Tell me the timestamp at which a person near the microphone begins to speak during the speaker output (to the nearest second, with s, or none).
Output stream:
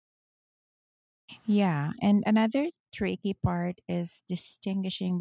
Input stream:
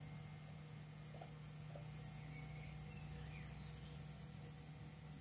none